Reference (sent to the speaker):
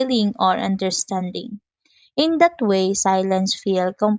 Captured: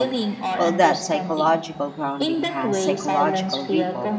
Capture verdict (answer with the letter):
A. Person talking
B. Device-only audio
A